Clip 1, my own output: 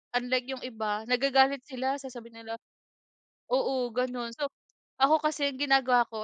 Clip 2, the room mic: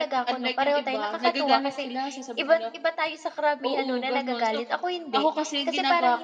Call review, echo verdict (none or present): present